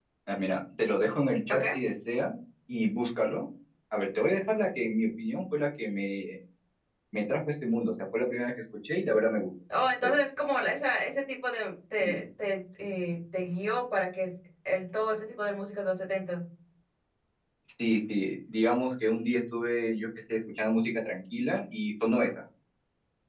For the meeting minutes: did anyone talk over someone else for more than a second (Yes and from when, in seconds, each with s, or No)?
No